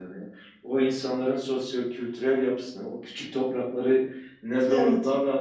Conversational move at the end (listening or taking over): listening